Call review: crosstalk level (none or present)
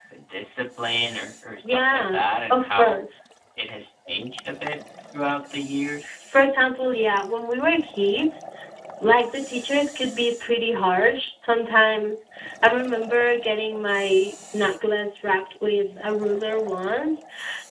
present